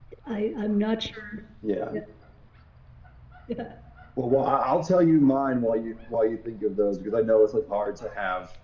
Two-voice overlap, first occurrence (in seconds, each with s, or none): none